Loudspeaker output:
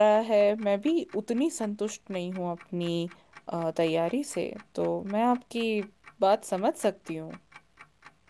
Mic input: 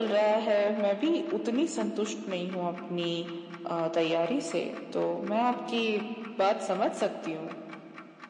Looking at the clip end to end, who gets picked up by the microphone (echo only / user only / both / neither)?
echo only